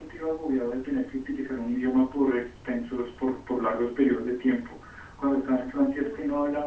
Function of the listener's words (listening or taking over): listening